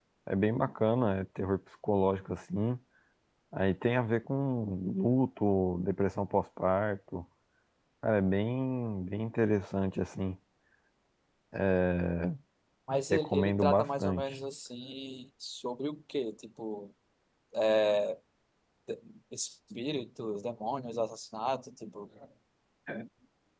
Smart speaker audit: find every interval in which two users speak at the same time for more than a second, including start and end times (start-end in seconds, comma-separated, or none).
13.1-14.4